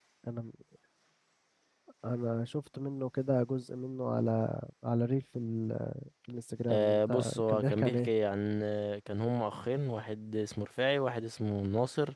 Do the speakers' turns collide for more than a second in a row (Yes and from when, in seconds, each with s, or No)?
Yes, from 6.7 s